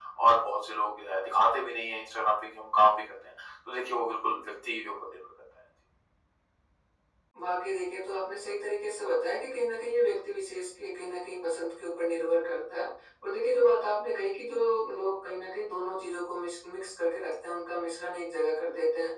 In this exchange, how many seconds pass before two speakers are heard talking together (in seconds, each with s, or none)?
none